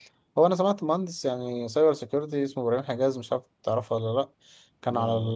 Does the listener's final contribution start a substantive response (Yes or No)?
No